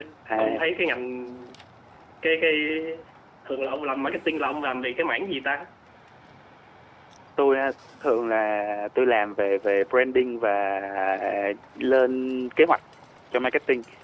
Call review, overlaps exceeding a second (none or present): none